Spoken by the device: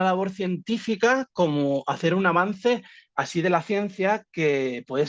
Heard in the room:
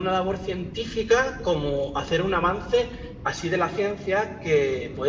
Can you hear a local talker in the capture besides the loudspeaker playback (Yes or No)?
No